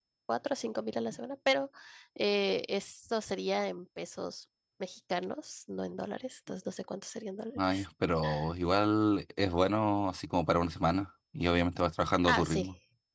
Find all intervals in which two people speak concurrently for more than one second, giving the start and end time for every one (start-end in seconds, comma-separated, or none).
none